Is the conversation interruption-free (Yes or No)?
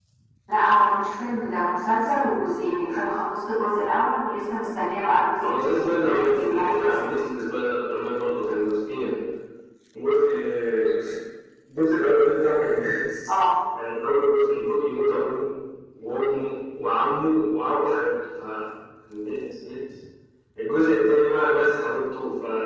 No